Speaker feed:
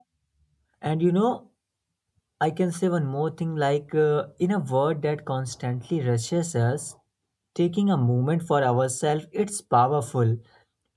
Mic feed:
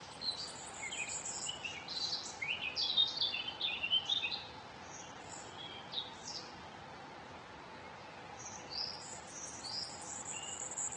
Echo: none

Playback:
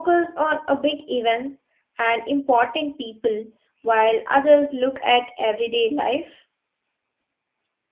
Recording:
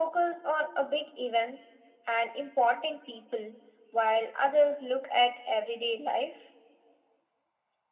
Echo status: present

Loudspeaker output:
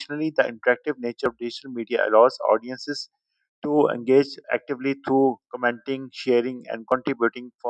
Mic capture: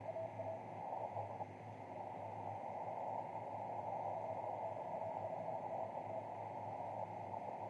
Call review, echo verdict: none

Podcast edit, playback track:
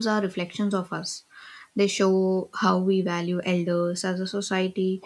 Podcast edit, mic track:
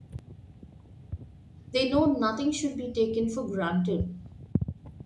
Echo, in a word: none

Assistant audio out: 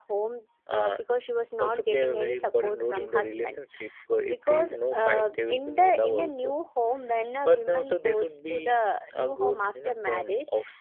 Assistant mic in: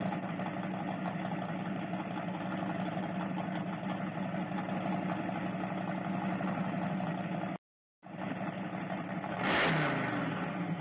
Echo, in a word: none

